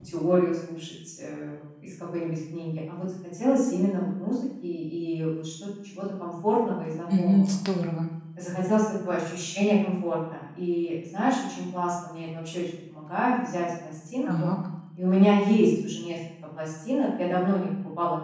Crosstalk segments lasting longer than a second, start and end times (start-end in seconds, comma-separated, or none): none